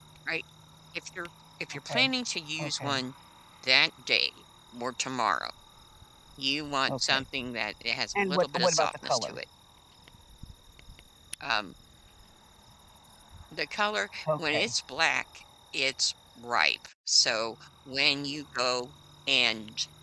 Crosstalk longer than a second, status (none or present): present